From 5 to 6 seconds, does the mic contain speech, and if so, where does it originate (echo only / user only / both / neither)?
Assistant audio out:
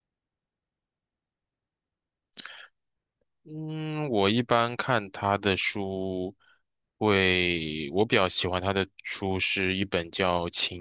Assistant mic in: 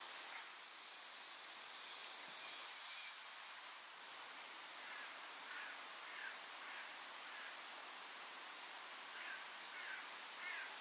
neither